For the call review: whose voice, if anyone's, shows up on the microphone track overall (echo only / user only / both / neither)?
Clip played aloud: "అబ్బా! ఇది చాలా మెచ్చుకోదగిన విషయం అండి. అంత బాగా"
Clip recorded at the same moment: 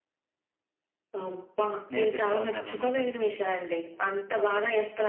both